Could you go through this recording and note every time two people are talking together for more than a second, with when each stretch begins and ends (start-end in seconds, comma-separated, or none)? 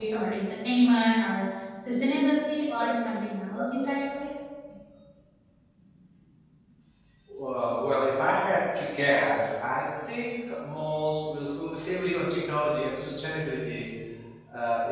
none